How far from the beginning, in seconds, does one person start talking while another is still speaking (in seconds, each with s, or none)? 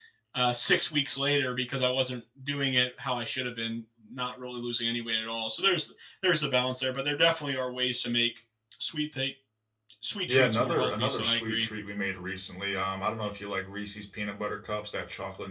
10.3 s